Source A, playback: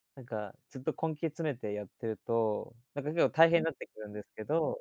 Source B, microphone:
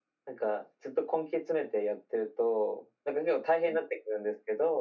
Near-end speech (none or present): none